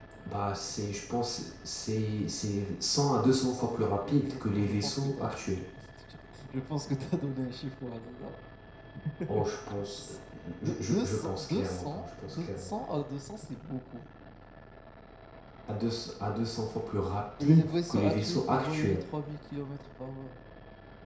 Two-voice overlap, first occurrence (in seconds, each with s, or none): 3.6 s